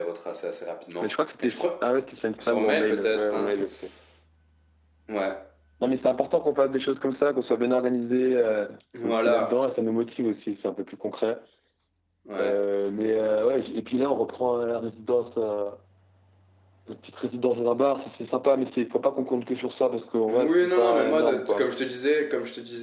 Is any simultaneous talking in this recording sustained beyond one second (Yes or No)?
Yes